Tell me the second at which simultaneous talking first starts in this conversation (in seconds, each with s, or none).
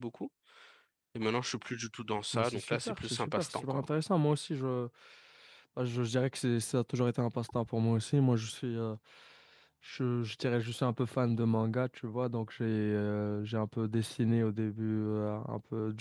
2.3 s